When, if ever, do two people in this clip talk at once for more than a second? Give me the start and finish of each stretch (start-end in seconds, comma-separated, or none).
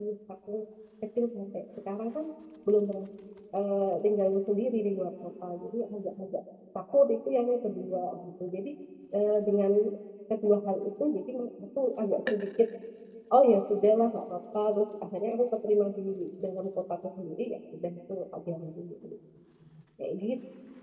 none